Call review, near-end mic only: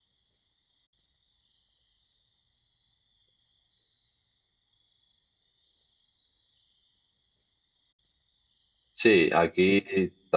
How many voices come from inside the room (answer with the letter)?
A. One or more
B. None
A